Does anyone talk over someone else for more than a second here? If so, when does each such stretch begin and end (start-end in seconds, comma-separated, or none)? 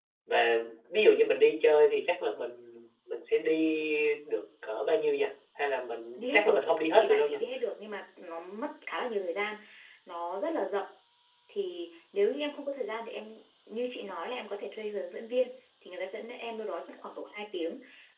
6.2-7.4